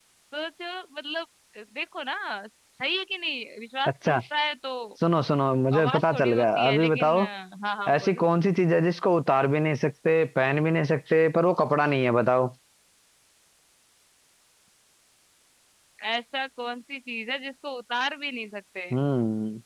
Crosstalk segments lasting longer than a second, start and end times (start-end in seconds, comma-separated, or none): 5.8-7.2